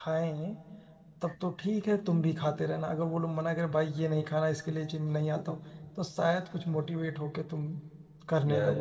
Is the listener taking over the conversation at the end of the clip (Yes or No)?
Yes